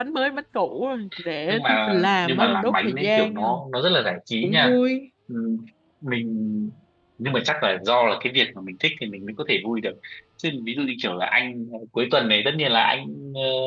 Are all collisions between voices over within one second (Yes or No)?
No